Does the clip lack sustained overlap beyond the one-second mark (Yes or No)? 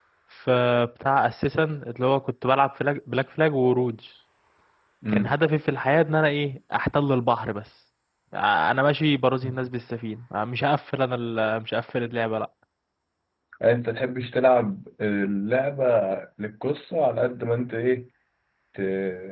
Yes